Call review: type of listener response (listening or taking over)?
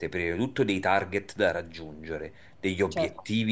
listening